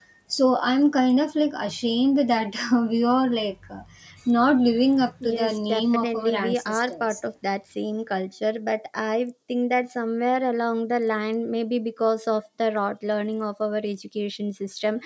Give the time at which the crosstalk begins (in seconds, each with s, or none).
5.2 s